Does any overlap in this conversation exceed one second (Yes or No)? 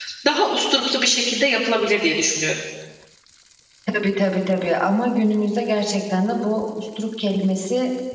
No